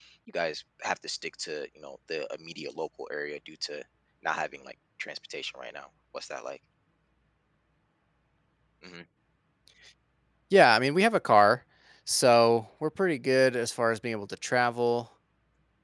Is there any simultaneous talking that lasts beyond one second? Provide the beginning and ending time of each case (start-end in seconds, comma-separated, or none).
none